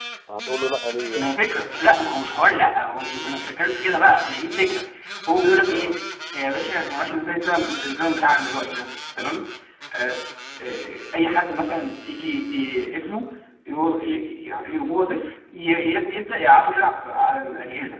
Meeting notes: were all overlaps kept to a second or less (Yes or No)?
Yes